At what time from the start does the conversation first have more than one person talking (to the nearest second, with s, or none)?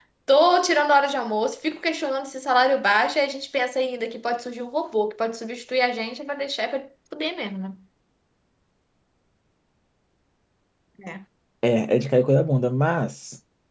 none